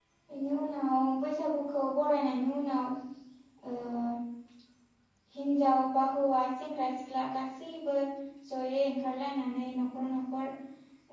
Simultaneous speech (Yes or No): No